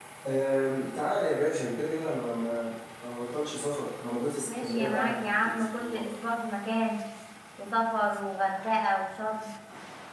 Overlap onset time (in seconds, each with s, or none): 4.5 s